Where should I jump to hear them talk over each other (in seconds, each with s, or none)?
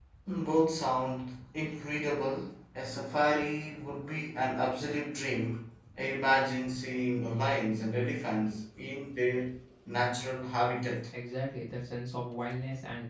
none